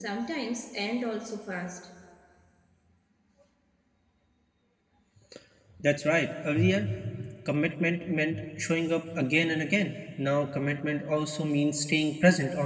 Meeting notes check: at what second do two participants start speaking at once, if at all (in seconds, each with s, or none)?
none